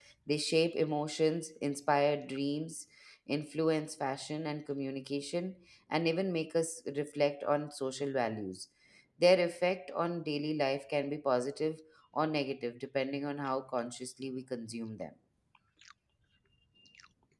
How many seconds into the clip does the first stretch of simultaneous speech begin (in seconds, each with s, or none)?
none